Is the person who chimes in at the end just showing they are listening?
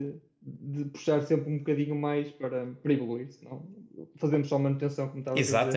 No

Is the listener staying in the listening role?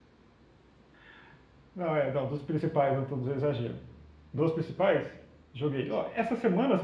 Yes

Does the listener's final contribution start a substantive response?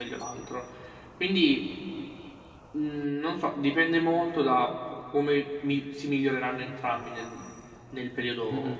Yes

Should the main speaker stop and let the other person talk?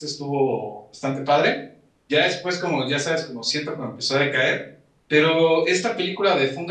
No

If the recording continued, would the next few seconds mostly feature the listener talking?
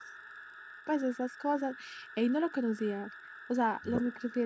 No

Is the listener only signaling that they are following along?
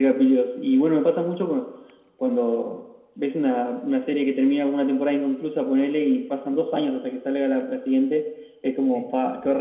Yes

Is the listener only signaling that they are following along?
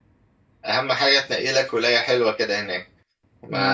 Yes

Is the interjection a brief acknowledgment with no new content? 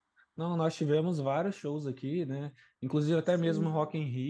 Yes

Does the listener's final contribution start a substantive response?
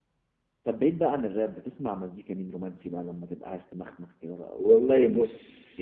Yes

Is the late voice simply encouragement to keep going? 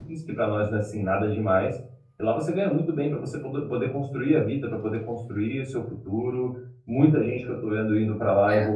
Yes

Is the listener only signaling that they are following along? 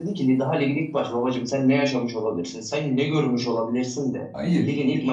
Yes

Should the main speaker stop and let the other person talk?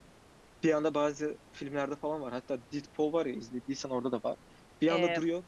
No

